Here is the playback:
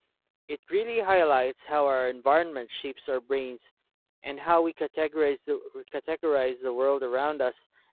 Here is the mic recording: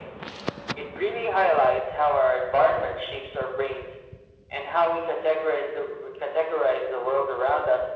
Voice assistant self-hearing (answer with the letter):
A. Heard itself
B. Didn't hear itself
A